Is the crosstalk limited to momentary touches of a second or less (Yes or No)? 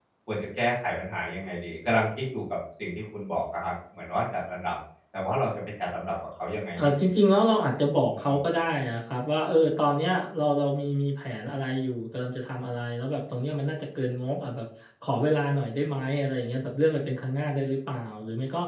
Yes